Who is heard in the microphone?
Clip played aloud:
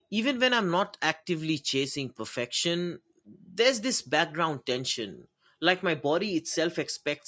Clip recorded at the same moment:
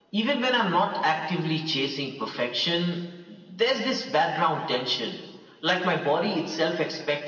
echo only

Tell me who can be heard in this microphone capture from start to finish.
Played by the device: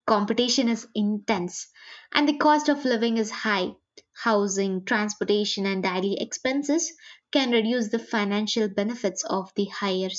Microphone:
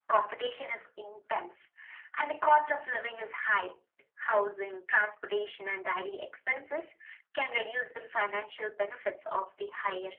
echo only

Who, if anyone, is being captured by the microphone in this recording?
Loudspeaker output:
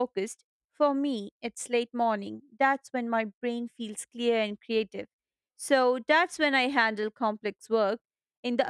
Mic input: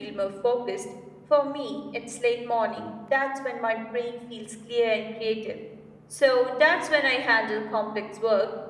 echo only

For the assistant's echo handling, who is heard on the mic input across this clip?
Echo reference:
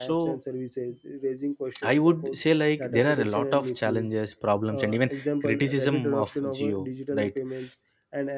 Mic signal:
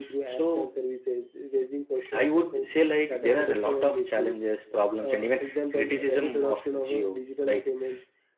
echo only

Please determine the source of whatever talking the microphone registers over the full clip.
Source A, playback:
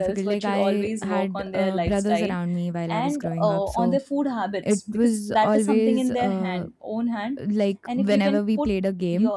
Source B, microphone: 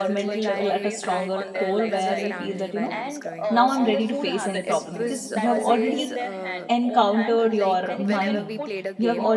both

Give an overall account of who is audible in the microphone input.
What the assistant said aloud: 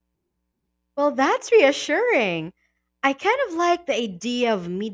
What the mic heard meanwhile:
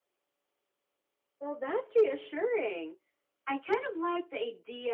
echo only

